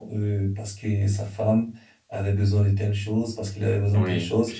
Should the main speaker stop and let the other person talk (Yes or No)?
Yes